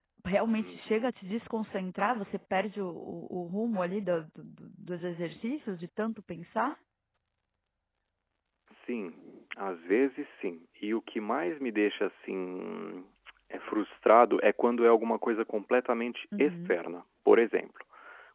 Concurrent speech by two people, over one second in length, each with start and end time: none

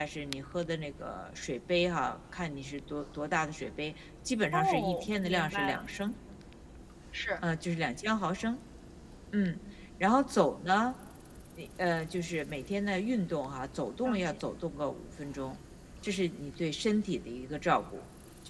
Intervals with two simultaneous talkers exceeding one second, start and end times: 4.5-5.8

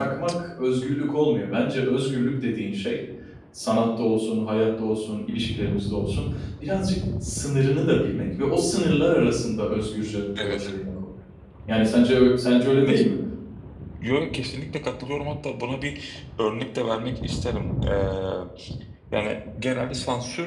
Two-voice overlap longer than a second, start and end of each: none

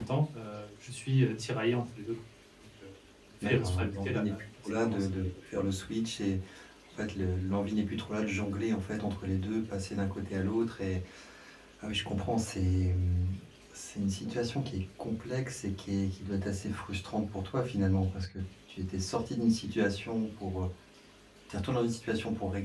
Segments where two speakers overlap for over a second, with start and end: 3.4-5.1

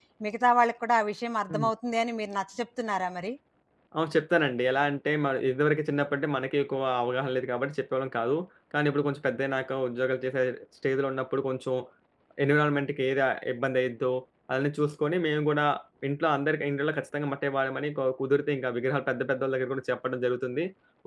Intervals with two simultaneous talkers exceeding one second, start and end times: none

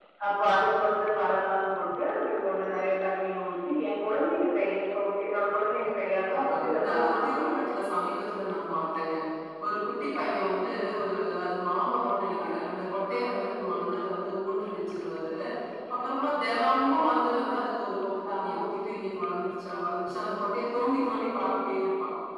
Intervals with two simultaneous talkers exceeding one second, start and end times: 6.3-7.5

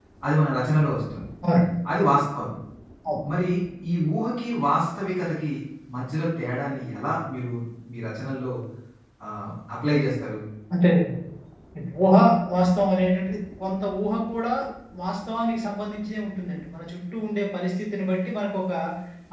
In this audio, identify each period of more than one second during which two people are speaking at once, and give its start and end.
none

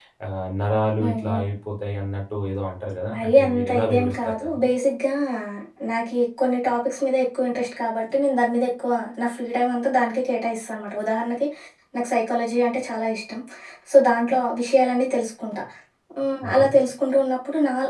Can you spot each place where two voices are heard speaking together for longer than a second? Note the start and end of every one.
3.1-4.6

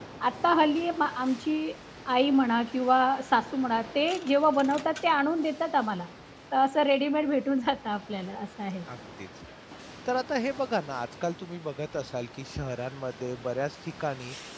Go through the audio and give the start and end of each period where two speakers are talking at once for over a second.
none

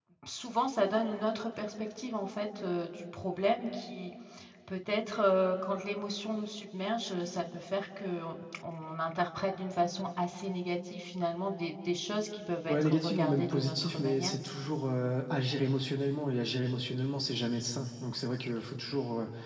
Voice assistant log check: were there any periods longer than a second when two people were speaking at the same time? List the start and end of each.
12.7-14.3

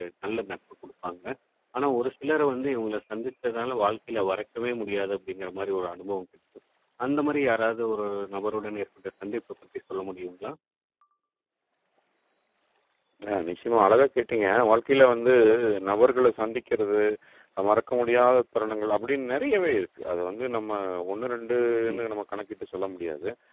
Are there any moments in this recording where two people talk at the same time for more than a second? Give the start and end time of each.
none

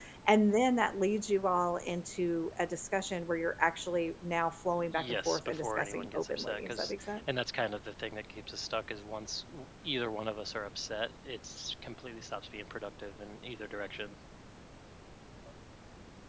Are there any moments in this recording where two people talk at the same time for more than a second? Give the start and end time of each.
4.9-7.2

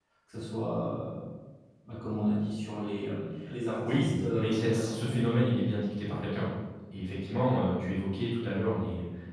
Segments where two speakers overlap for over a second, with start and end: 3.9-5.4

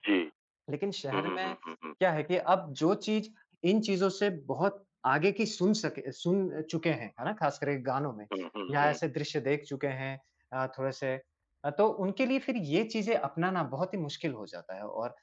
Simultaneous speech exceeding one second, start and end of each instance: none

